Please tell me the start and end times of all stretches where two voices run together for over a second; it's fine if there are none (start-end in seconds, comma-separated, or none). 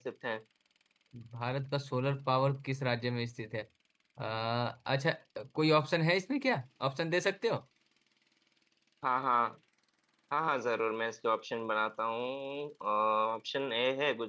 none